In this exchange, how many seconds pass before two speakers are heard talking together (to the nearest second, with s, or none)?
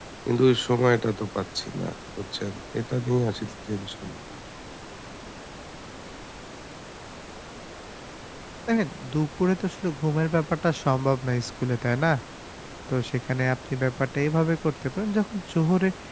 none